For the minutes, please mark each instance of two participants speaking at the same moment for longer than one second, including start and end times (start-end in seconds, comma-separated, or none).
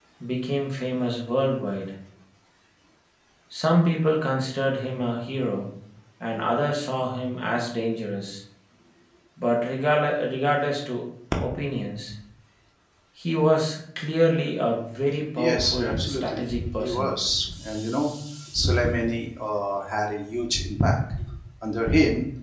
15.4-17.1